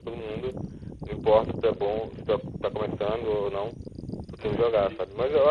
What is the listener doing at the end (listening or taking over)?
listening